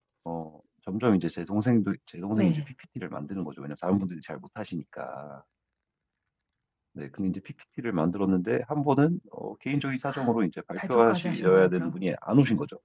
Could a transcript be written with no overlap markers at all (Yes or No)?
No